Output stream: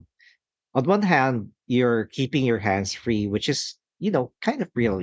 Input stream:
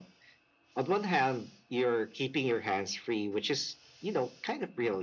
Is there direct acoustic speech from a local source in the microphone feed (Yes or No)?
No